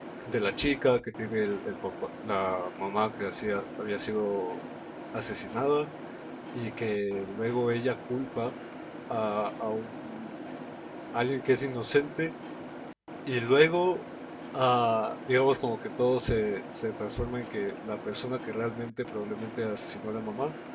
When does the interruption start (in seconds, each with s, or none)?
none